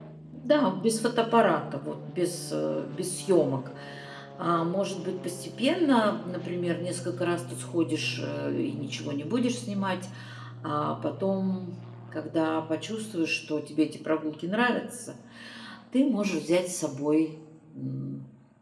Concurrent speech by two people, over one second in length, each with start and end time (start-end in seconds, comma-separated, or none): none